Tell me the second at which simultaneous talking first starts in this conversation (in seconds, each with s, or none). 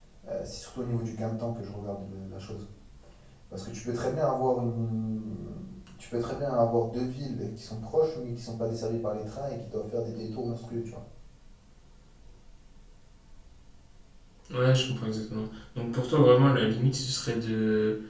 none